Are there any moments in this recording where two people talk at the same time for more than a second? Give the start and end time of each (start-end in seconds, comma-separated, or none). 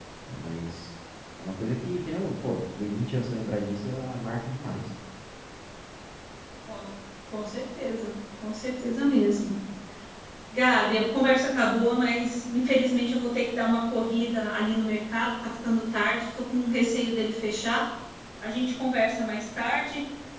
none